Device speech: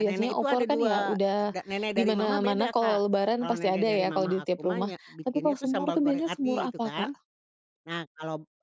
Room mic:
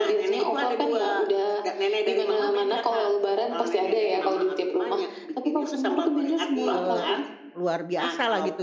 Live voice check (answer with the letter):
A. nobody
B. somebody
B